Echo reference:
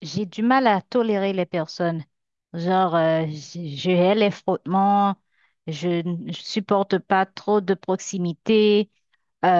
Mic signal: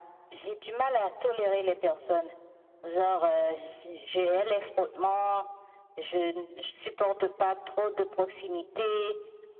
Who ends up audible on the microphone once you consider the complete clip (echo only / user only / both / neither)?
echo only